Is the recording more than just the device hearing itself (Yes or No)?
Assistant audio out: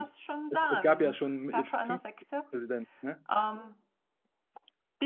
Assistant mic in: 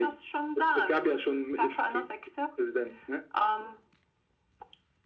No